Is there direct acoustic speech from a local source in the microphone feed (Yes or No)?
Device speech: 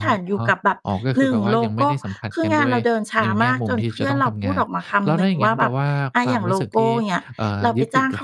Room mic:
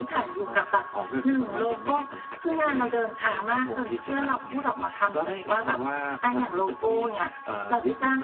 Yes